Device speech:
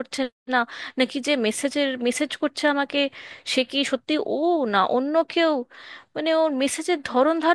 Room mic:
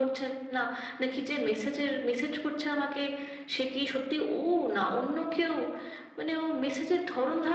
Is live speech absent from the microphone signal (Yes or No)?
Yes